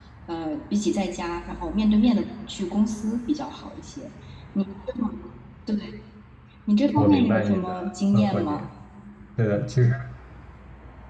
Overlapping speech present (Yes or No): Yes